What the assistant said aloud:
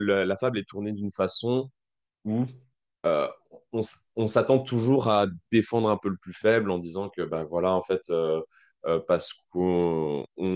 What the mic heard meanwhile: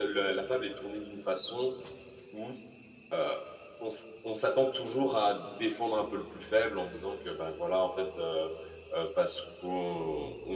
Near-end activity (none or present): none